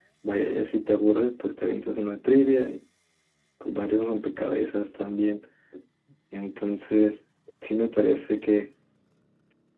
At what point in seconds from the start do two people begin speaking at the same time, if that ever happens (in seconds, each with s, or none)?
none